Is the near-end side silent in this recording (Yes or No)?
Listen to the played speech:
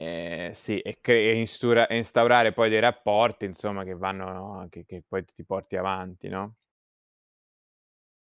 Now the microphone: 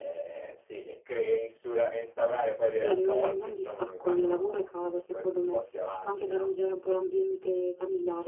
No